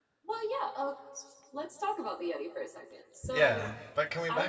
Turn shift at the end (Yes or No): Yes